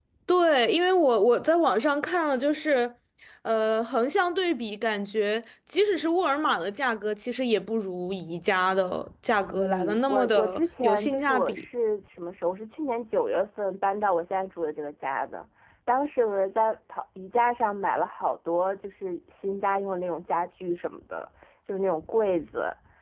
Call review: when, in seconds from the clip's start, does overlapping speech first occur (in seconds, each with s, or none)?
9.5 s